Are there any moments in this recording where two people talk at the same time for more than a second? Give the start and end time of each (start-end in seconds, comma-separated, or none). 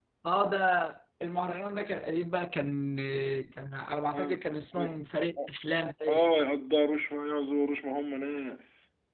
none